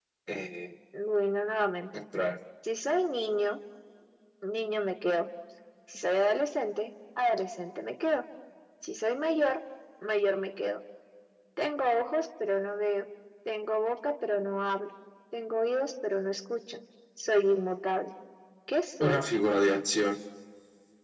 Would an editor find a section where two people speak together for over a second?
No

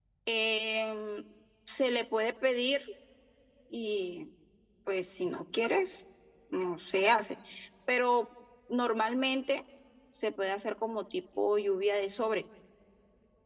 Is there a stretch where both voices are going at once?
No

